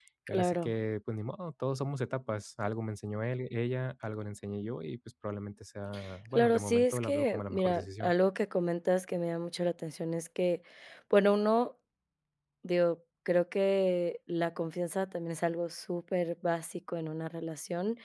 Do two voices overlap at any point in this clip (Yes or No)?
Yes